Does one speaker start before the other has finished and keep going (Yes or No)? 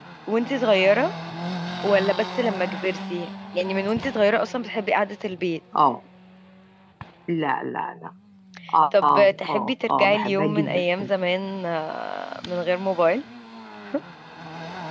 Yes